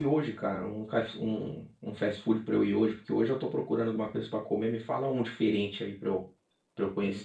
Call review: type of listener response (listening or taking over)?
taking over